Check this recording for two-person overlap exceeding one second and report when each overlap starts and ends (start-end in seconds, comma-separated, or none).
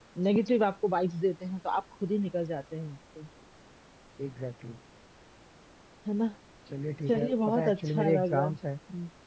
7.1-8.6